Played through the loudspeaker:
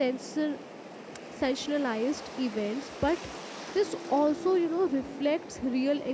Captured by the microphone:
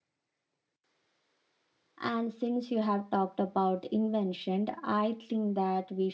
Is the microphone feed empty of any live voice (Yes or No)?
No